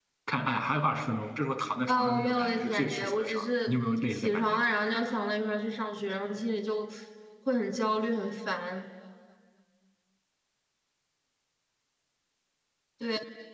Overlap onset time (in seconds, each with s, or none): 1.9 s